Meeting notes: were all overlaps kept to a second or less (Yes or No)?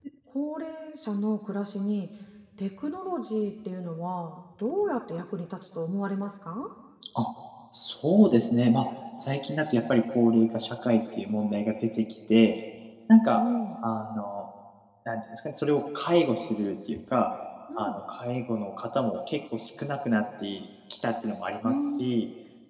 Yes